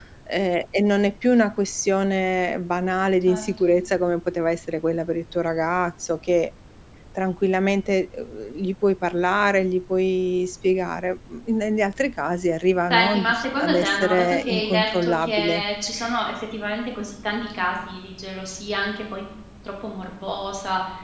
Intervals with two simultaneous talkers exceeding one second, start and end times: 12.9-15.6

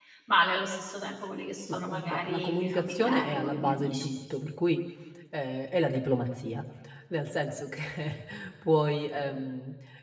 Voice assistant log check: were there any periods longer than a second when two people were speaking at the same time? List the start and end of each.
1.7-4.2

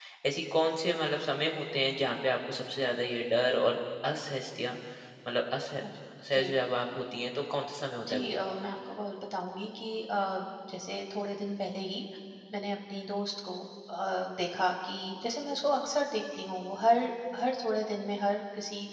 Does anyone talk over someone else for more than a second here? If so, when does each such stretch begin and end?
none

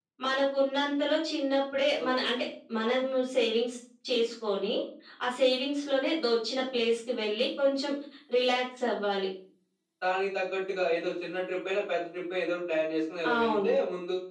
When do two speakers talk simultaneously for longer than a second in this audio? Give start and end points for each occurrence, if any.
none

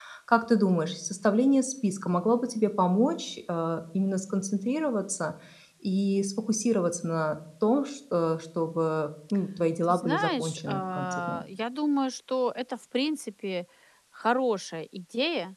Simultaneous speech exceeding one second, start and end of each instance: 9.9-11.4

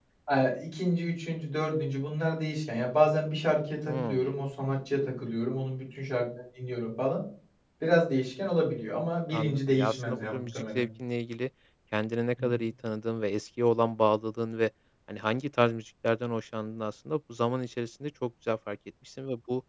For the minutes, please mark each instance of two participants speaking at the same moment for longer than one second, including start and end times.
9.3-10.8

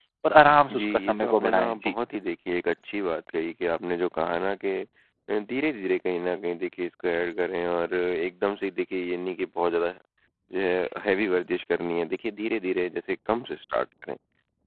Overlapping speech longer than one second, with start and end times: 0.7-1.9

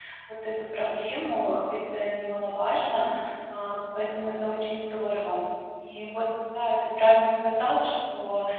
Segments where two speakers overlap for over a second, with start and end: none

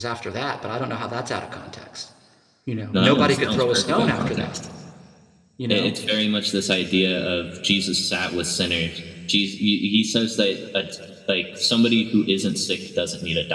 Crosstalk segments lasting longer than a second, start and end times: 2.9-4.6

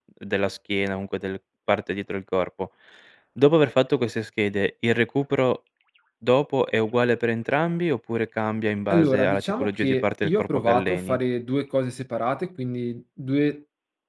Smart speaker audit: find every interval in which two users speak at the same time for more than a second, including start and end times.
8.9-11.2

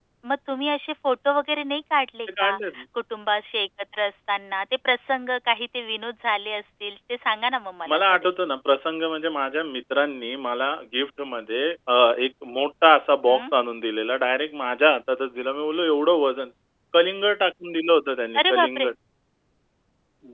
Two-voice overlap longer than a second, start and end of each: none

